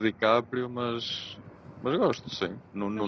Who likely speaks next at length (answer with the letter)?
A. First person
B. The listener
A